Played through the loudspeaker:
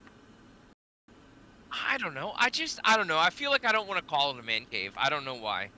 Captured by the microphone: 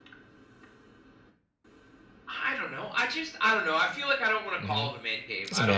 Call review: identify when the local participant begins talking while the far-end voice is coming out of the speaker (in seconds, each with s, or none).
4.6 s